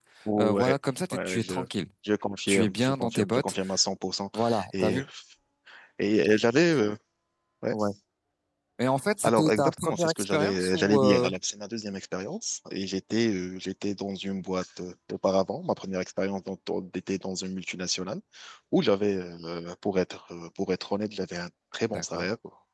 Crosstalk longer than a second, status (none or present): present